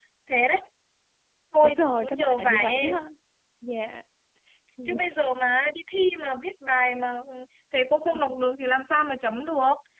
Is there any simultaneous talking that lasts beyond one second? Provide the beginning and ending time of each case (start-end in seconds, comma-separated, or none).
1.6-2.9